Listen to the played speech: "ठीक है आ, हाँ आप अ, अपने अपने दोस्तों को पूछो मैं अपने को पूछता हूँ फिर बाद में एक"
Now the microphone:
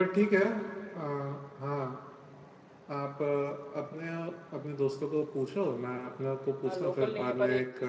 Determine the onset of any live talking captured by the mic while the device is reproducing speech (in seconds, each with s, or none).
6.6 s